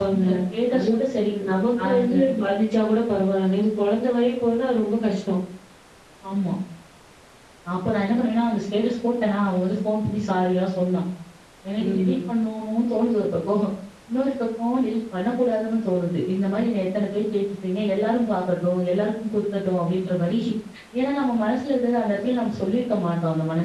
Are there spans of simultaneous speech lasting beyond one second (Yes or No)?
No